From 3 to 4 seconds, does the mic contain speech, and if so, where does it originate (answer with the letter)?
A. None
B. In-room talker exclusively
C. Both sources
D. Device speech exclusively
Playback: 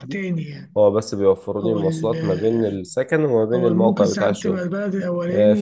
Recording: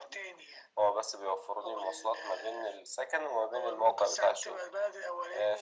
D